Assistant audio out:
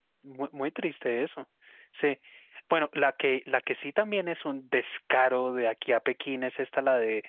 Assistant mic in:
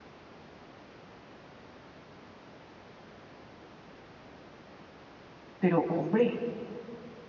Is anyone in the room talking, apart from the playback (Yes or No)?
Yes